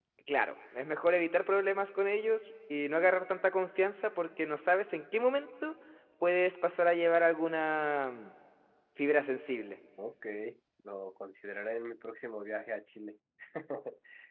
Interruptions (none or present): none